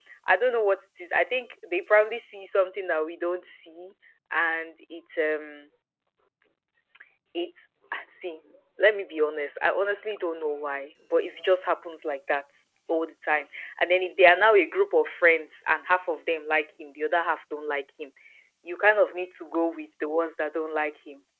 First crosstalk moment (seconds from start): none

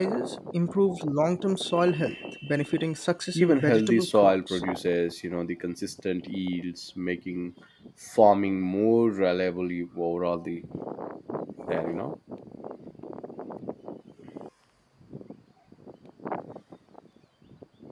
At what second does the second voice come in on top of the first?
3.4 s

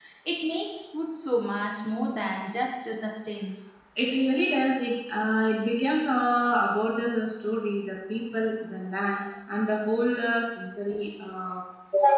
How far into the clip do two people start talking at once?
none

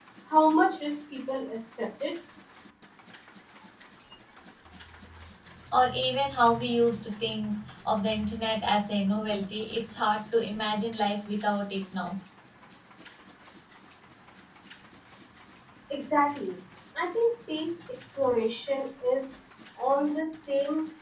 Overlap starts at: none

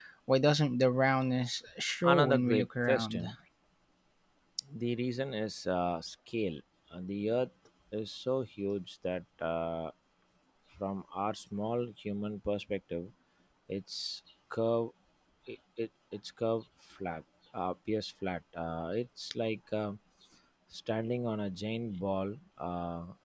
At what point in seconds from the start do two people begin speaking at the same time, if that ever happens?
2.0 s

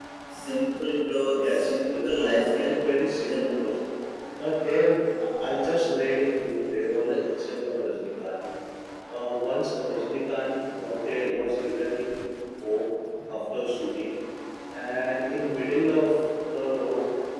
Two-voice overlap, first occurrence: 1.4 s

